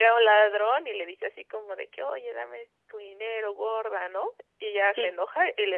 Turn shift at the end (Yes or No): No